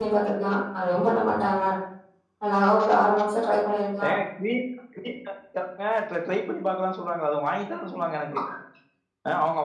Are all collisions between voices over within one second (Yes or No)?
Yes